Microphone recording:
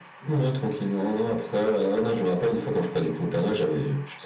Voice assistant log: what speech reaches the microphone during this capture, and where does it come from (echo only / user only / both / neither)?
echo only